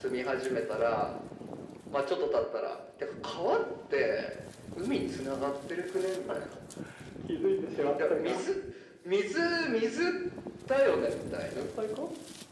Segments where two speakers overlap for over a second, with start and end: none

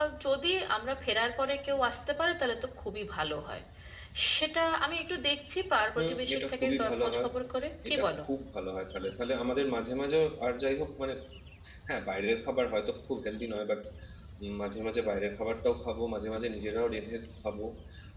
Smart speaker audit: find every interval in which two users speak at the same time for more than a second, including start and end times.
6.0-7.3

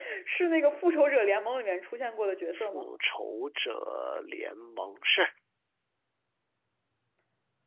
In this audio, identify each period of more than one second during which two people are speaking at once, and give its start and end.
none

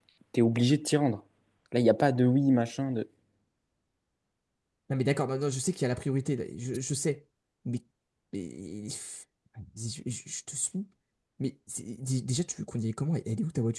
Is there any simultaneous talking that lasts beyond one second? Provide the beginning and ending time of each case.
none

